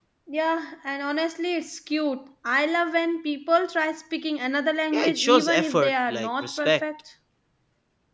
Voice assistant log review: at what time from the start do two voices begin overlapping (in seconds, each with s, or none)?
4.9 s